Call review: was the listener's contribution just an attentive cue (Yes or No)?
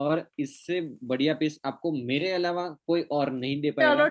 No